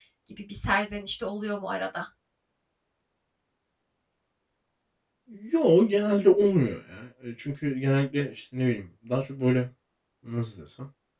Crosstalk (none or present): none